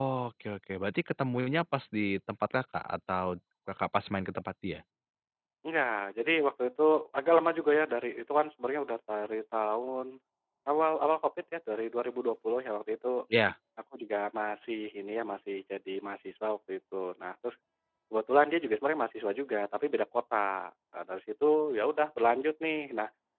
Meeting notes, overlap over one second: none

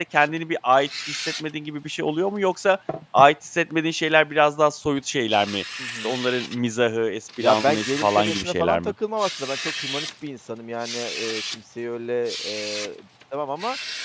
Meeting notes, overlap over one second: present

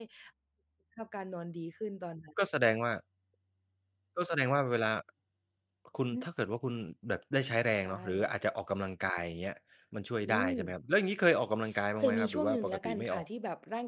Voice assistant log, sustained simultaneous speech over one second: present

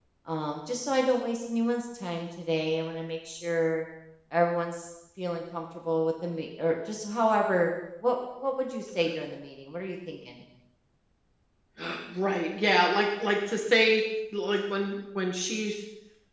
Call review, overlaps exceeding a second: none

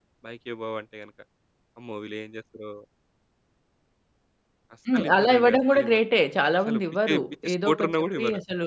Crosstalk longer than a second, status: present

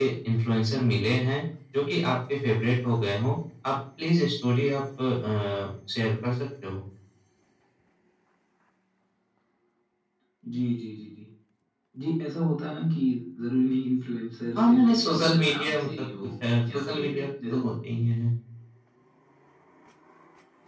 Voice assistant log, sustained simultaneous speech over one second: present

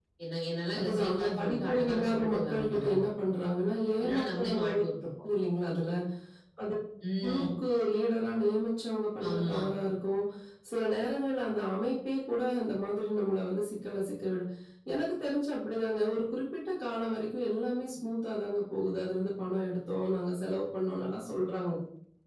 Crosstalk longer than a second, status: present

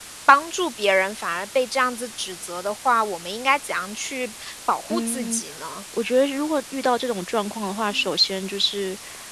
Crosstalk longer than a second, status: none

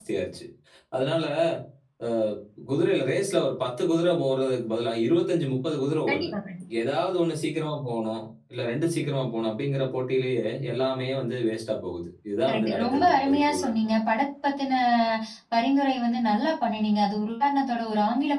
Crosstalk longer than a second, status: present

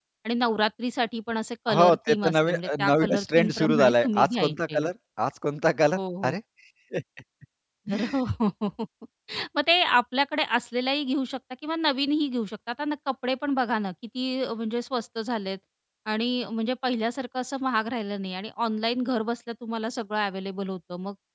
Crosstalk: present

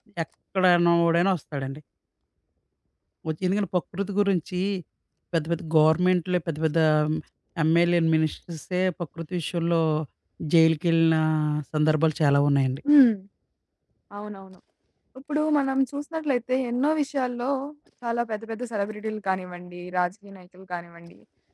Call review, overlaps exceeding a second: none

